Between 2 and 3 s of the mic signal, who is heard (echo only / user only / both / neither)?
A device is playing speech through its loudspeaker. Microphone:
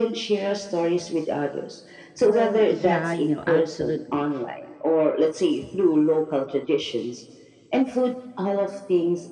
both